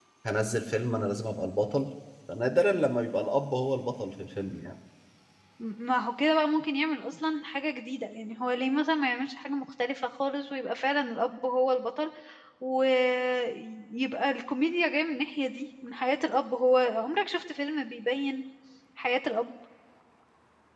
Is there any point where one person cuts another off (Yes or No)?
No